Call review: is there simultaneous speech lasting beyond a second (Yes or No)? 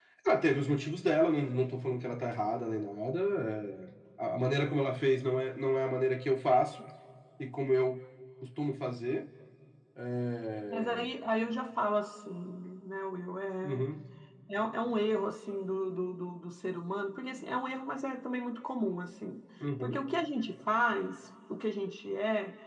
No